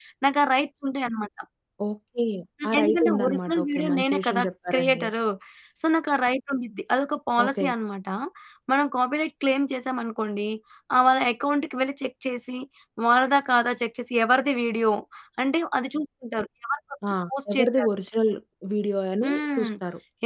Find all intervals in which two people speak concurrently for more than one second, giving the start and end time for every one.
2.7-5.0

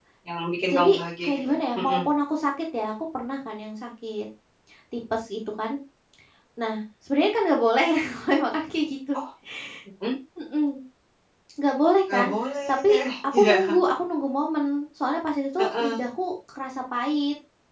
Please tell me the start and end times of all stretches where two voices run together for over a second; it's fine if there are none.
0.7-2.1

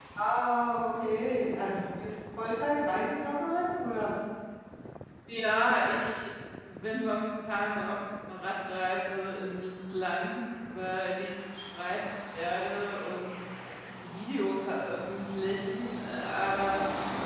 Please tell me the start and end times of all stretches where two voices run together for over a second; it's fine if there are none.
none

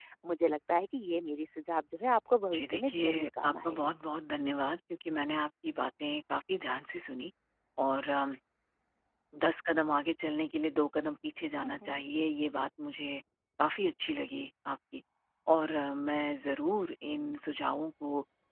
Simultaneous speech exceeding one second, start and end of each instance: 2.5-3.9

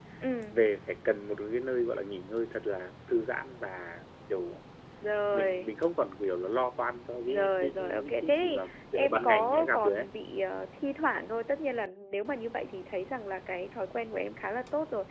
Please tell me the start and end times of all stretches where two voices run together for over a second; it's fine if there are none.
7.3-10.1

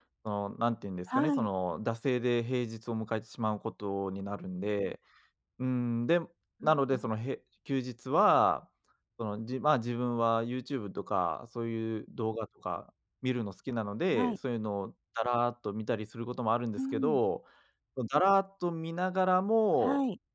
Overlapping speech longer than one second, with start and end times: none

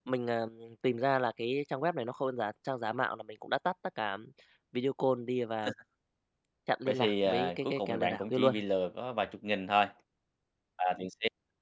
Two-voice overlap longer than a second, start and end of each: 6.9-8.5

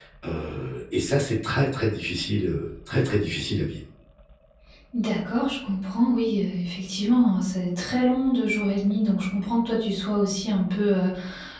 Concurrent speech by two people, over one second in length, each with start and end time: none

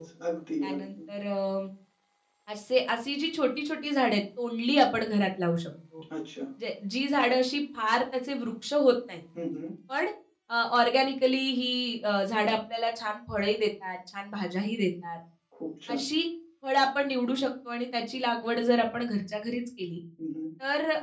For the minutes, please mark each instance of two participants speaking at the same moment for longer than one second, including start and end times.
none

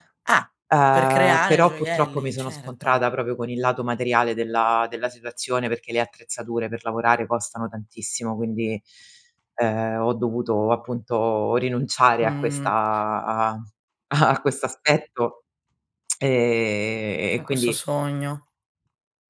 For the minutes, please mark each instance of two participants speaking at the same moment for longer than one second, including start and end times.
0.9-3.0

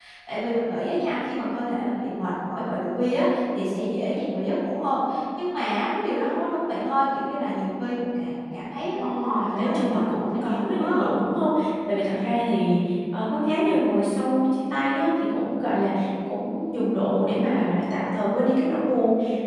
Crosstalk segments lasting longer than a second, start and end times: 8.9-11.1

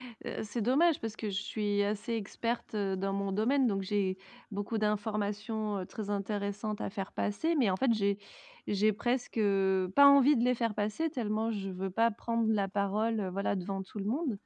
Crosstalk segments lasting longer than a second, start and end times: none

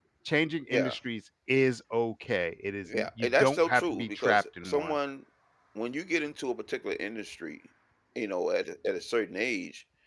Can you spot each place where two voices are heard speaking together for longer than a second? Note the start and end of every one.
2.9-4.9

